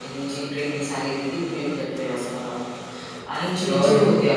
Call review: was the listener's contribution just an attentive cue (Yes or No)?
Yes